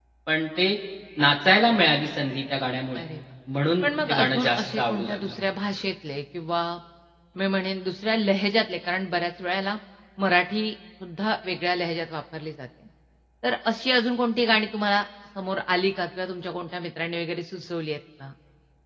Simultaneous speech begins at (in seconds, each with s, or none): 3.8 s